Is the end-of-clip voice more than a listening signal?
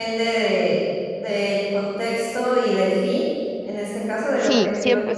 Yes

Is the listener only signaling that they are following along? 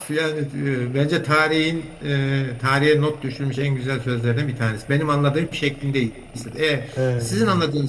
Yes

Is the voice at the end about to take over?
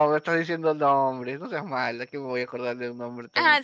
Yes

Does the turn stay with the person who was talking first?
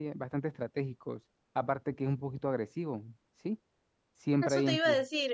No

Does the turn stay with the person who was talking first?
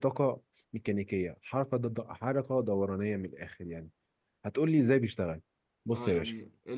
No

